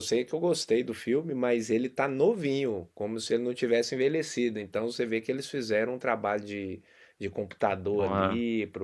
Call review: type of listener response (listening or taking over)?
listening